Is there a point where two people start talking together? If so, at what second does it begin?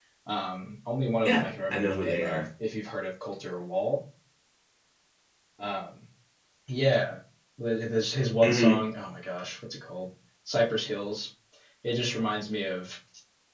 1.2 s

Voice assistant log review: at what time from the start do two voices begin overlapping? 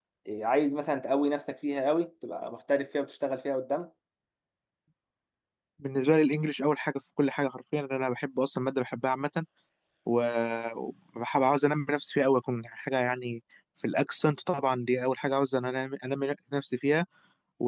none

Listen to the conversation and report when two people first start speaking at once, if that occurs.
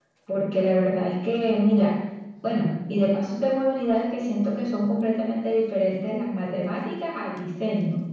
none

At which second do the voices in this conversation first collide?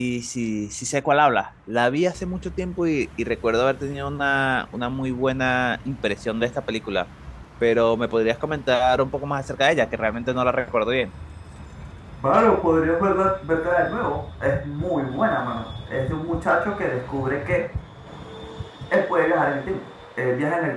none

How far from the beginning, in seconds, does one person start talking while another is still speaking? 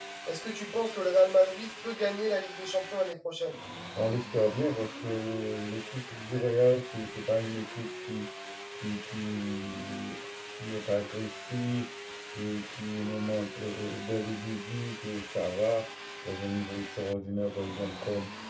none

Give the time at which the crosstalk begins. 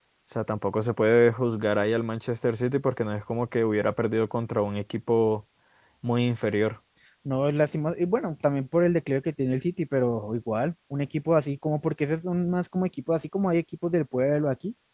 none

